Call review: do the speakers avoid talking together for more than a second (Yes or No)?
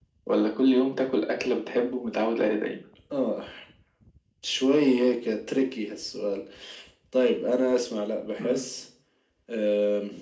Yes